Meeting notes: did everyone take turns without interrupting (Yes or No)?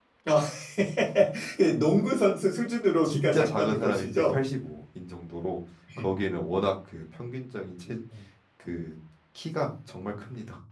No